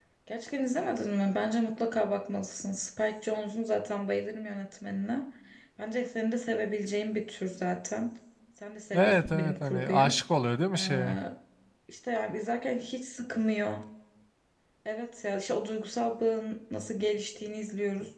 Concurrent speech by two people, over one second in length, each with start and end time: 8.9-10.2

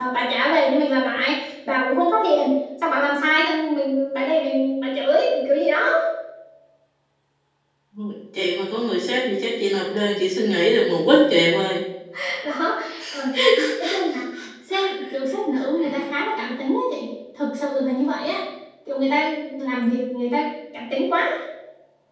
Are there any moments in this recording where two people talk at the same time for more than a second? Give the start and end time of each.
none

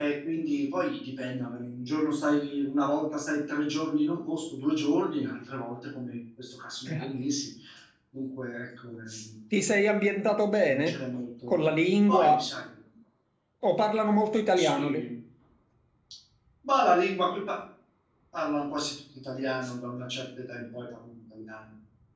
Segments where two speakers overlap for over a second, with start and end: none

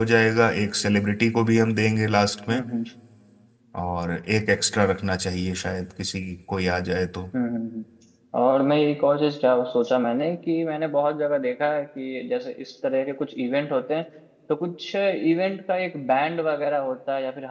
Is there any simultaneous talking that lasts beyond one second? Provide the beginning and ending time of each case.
none

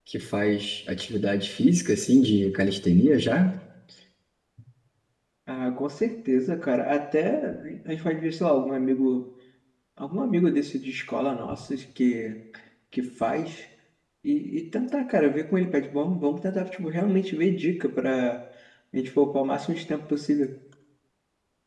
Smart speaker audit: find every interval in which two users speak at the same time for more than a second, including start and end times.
none

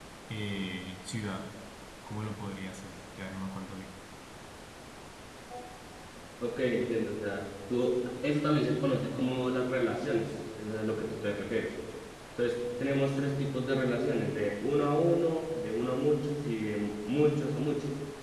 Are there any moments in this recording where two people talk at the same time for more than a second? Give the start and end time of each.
none

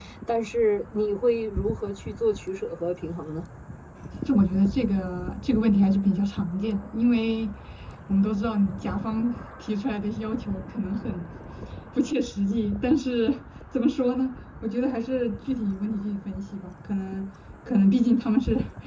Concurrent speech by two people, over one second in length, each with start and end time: none

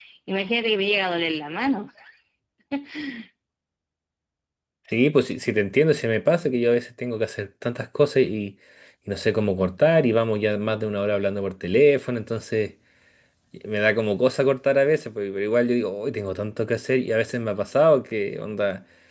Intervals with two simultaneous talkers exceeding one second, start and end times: none

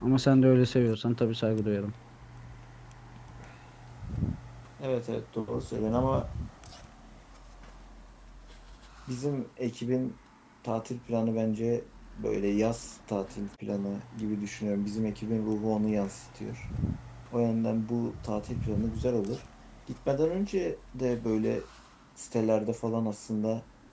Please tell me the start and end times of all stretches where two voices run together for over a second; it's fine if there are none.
none

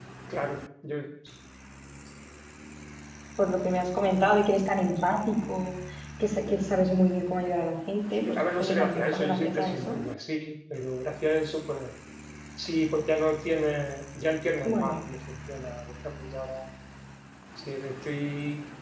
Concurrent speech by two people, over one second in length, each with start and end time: 8.2-10.0

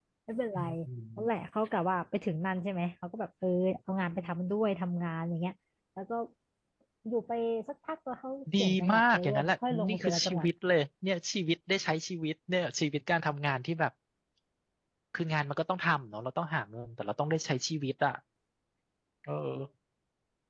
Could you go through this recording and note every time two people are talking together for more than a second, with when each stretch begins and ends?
8.6-10.5

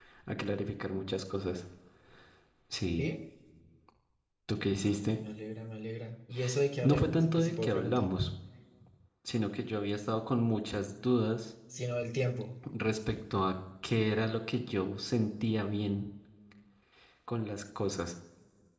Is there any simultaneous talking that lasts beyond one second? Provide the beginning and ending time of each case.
6.8-8.1

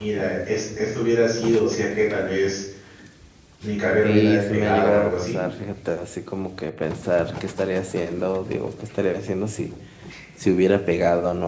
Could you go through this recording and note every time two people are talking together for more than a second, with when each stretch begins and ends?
4.0-5.4

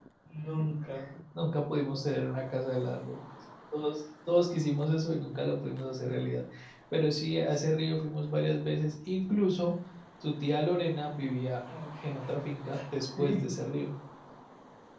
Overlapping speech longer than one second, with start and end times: none

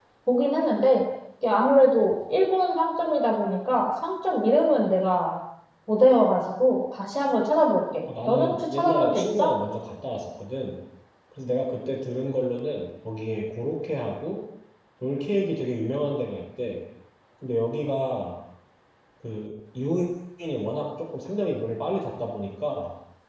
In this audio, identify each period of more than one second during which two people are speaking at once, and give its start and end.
8.3-9.5

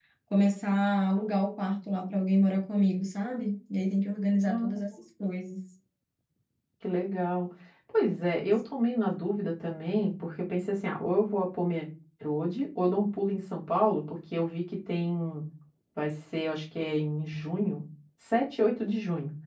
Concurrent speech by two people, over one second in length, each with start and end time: none

